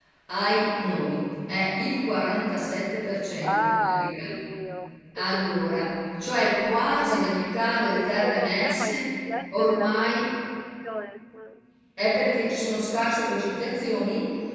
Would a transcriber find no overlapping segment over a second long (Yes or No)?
No